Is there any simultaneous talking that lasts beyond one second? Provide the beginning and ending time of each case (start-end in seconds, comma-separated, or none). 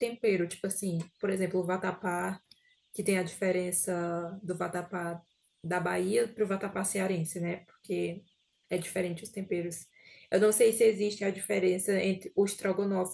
none